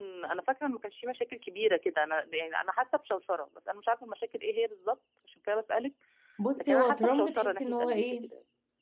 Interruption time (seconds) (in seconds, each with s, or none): 6.6 s